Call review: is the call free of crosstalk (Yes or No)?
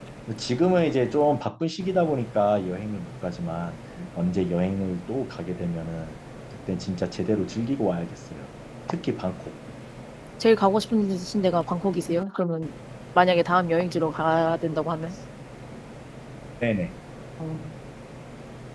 Yes